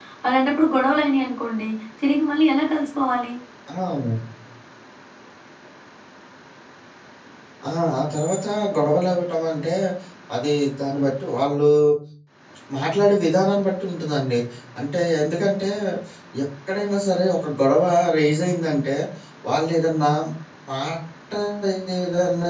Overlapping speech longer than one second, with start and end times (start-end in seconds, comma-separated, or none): none